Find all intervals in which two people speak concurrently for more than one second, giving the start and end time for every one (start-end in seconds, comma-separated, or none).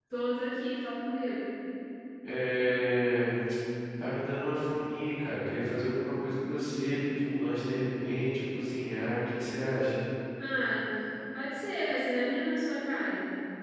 none